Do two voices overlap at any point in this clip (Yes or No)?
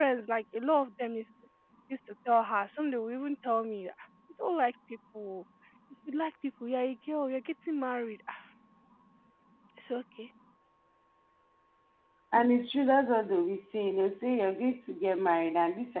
No